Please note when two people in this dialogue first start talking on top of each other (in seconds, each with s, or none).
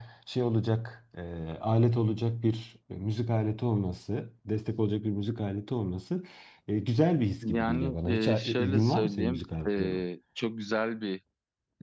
7.4 s